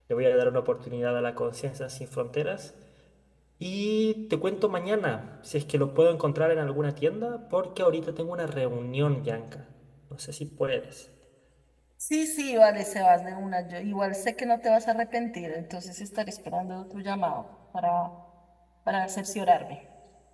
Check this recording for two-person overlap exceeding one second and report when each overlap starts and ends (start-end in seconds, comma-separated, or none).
none